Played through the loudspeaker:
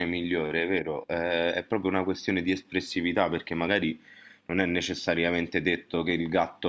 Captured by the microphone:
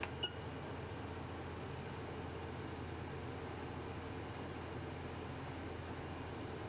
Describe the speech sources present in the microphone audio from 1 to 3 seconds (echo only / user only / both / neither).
neither